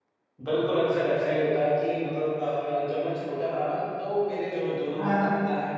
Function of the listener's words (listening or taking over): listening